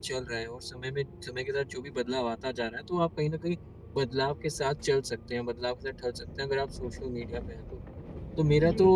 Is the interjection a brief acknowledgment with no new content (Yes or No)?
Yes